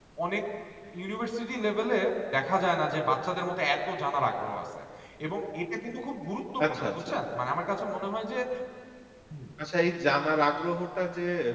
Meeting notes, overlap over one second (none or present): none